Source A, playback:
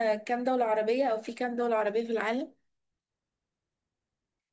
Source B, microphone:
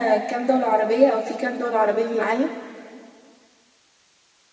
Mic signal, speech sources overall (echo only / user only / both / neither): echo only